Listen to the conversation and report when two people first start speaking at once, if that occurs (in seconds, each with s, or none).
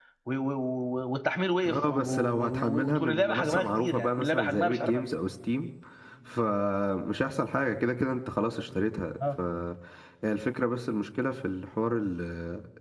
1.6 s